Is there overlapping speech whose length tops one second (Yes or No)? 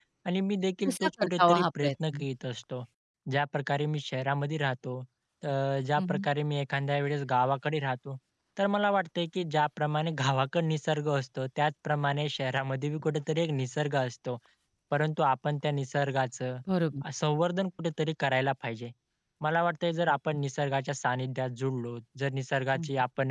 Yes